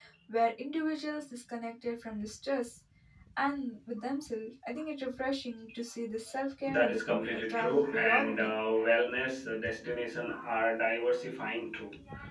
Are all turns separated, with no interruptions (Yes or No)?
No